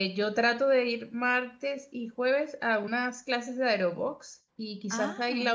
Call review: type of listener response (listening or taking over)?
listening